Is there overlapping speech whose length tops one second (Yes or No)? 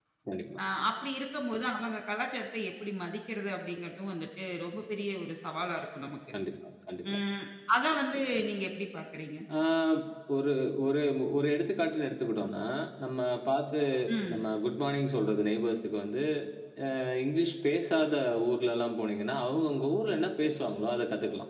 No